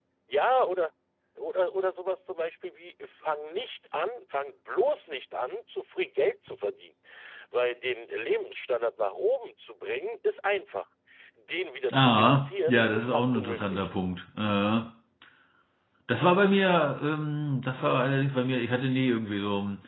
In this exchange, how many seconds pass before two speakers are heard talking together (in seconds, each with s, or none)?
11.9 s